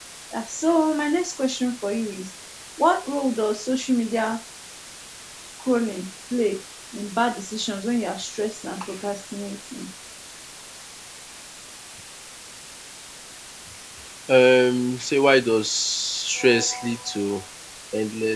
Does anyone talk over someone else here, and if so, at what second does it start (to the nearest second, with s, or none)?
none